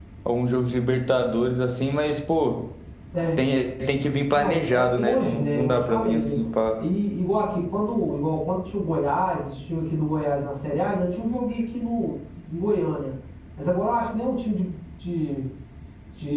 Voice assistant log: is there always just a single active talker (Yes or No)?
No